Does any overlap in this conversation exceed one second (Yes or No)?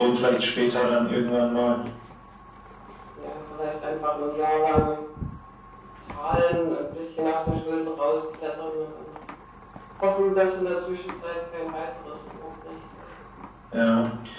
No